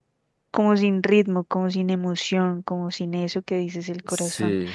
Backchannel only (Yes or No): Yes